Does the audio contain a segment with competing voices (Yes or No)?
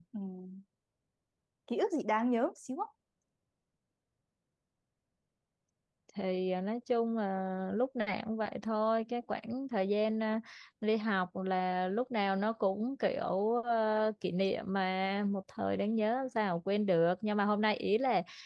No